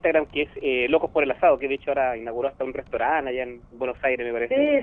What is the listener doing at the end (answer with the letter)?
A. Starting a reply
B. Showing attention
A